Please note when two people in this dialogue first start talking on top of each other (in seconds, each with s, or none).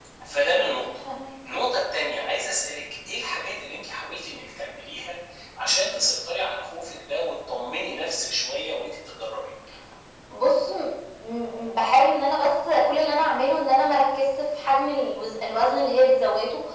none